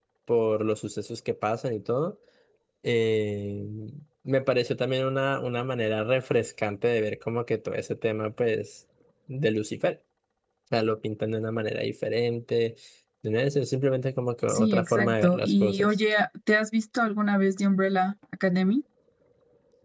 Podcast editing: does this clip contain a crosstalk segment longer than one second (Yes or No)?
Yes